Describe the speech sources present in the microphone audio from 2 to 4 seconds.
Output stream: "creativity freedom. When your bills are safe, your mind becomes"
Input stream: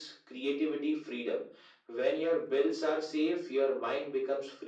echo only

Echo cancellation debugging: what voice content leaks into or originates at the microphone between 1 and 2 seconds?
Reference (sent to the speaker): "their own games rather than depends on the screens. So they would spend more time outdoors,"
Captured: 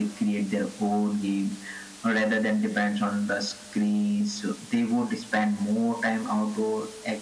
echo only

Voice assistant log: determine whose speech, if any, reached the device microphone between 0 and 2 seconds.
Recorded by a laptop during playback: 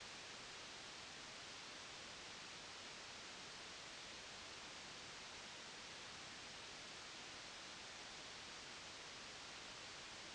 neither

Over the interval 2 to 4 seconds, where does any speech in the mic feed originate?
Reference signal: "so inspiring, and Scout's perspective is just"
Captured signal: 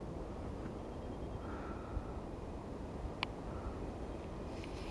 neither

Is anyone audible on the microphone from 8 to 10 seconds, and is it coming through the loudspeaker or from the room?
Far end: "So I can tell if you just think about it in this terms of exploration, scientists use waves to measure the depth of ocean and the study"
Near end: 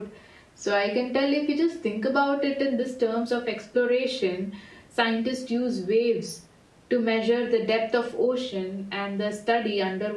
echo only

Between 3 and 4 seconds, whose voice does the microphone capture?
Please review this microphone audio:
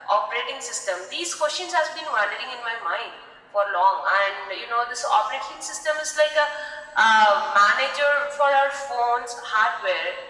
echo only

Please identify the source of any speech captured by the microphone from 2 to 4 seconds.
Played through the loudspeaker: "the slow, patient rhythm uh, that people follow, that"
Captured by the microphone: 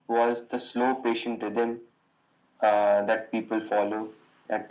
echo only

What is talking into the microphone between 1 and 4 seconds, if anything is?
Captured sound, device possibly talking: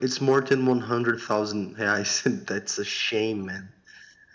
echo only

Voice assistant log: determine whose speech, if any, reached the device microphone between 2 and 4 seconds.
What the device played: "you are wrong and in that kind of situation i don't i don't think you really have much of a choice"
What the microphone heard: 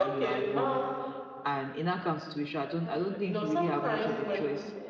both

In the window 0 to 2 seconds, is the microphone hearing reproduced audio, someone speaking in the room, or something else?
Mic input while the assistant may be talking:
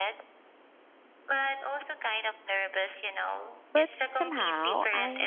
echo only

